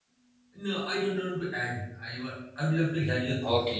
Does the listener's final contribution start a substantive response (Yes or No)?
Yes